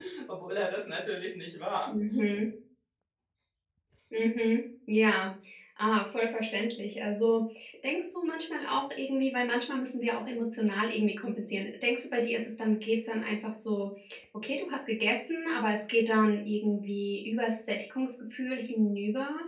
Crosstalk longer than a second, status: none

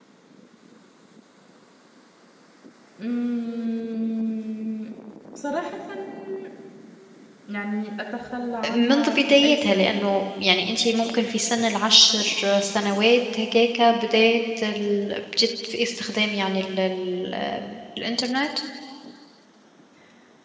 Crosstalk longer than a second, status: present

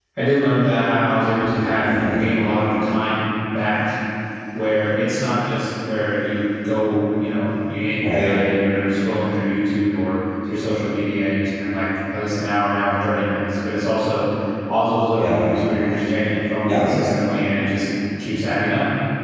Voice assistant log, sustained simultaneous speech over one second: none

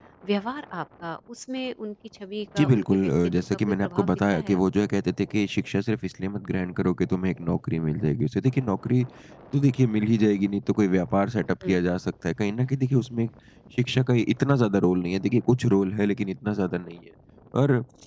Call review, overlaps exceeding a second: present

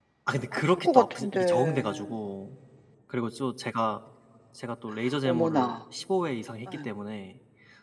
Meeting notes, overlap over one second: present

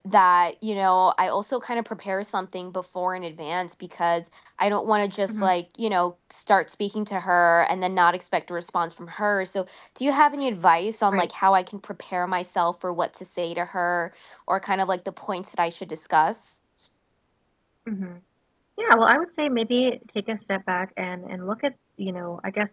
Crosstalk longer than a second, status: none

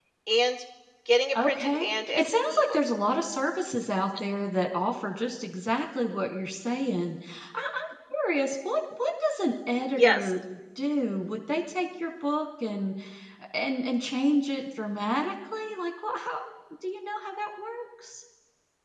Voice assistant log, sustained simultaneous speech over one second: present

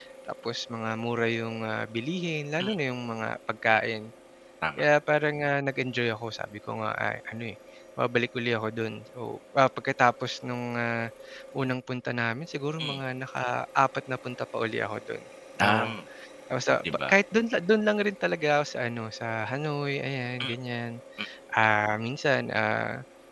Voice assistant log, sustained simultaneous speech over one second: none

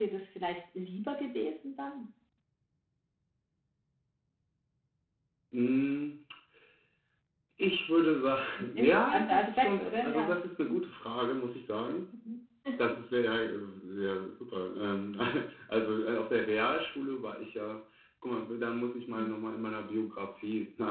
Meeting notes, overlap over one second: present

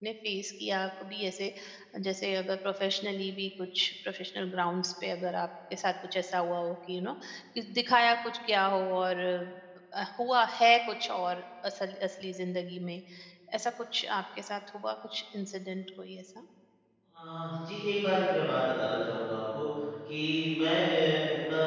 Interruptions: none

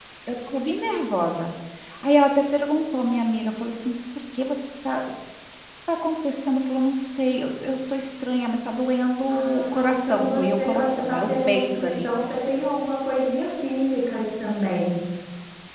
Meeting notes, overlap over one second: present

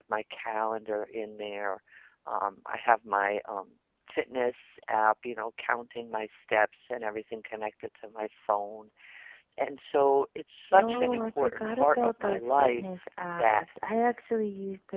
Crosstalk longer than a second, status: present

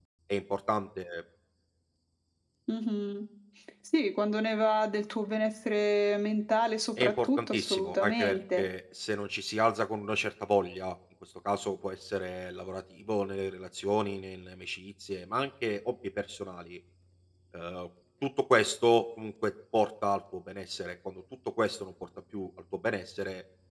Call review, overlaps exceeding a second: present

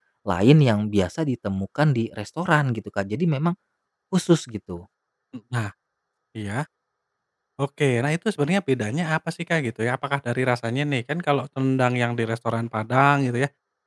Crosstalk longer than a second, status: none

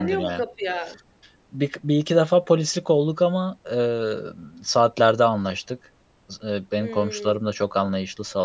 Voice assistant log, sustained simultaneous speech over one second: none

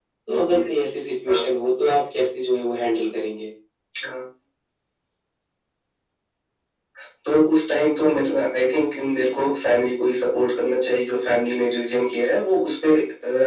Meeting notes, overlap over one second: none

